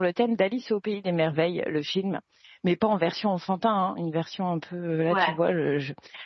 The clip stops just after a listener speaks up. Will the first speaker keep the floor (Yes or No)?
Yes